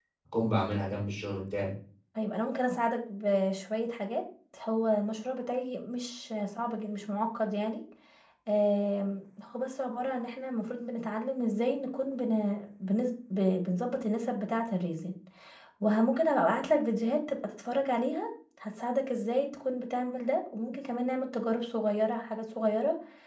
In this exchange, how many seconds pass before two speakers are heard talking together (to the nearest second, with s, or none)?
none